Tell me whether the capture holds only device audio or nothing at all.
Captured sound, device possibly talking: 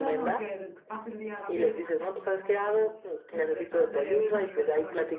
No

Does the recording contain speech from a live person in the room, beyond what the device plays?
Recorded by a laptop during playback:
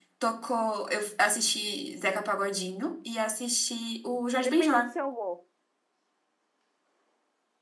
Yes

